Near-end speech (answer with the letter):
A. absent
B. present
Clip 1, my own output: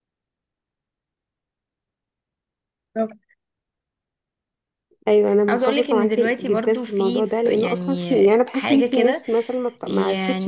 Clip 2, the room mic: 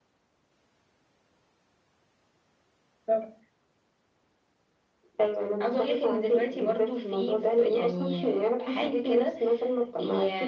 A